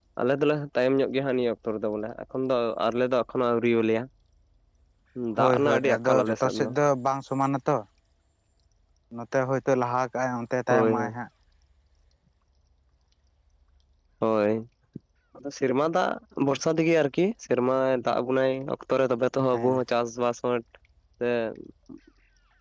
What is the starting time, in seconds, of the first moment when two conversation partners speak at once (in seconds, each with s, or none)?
5.4 s